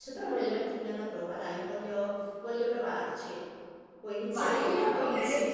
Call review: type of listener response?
taking over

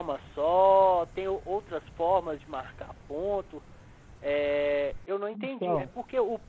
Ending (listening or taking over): listening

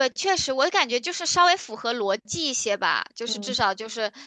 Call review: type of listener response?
listening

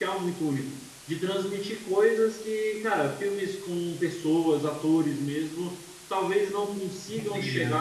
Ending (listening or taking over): listening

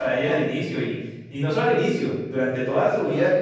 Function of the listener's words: listening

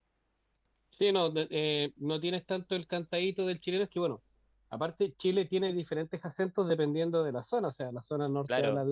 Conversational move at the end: listening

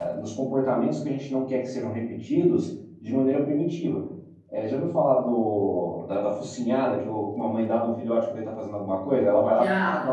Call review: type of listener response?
listening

